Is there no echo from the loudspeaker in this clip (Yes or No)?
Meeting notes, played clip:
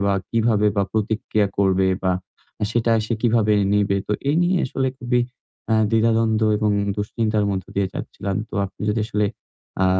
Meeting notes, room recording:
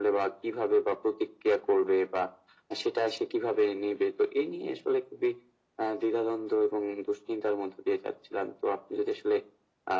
No